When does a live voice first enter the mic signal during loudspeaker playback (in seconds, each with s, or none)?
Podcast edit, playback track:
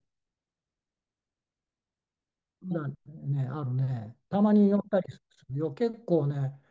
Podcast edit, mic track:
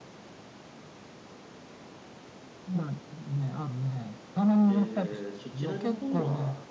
4.6 s